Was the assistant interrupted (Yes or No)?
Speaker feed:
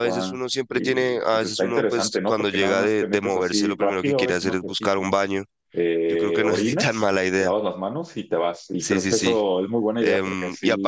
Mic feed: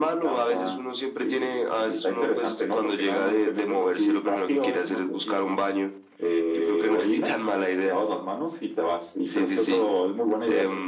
No